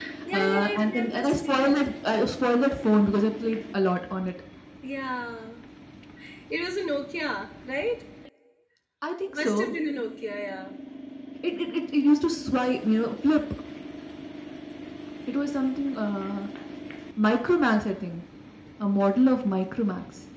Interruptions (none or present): present